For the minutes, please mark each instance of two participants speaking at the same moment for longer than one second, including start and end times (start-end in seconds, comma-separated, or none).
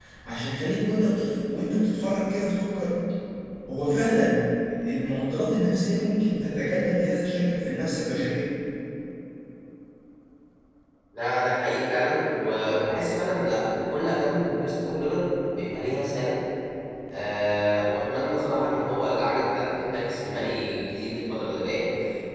none